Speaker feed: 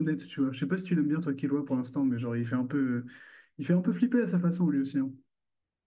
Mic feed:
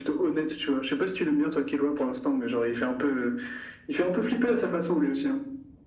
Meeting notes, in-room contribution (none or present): none